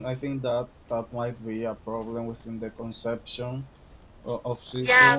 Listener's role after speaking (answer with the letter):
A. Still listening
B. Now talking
B